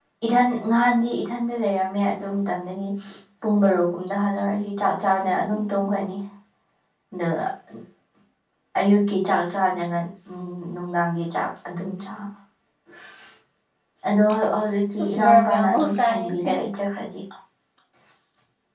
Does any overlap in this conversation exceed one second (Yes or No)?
Yes